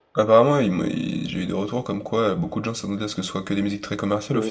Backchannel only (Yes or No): No